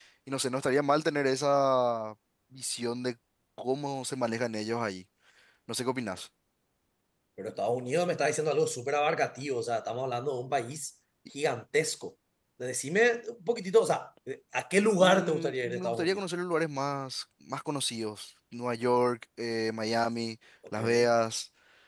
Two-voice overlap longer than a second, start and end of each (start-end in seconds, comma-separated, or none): 15.0-16.2